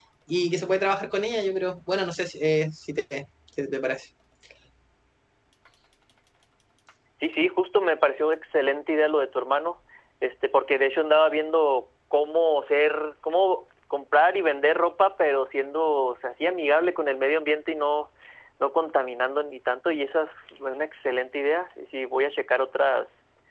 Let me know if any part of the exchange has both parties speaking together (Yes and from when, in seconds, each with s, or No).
No